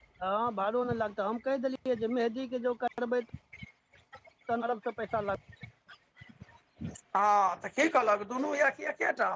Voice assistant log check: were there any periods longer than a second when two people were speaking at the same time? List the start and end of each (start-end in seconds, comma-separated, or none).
none